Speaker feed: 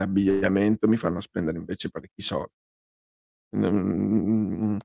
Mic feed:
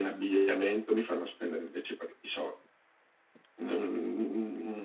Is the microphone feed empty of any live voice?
Yes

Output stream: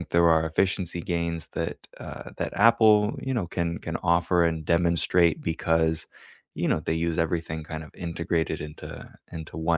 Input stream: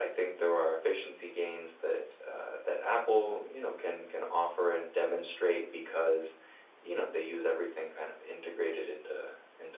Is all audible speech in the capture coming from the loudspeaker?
Yes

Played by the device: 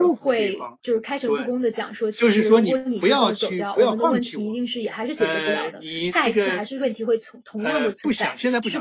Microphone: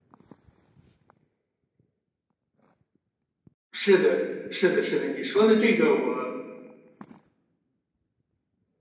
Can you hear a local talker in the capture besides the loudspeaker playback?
Yes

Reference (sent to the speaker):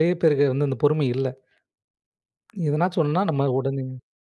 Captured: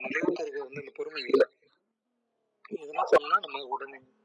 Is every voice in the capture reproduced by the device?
Yes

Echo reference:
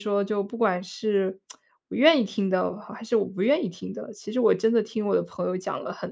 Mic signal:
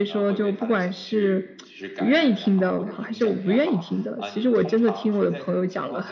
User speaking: Yes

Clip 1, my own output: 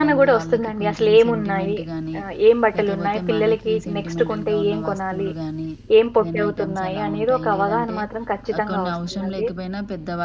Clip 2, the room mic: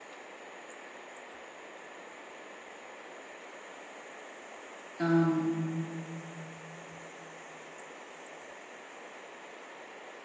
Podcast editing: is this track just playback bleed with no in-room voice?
No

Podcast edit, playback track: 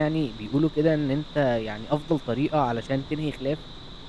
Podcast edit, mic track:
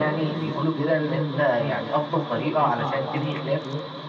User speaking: No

